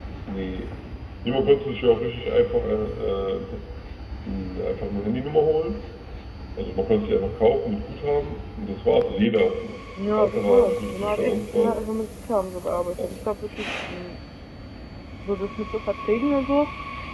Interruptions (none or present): present